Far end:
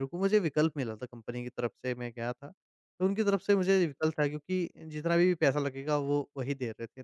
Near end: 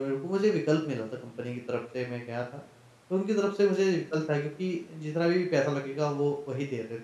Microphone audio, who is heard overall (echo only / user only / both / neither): echo only